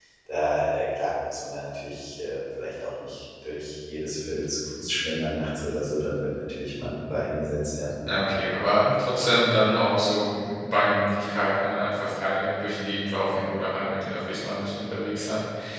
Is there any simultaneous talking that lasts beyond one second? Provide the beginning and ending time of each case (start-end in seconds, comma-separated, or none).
none